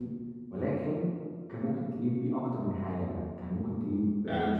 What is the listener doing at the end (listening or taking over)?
listening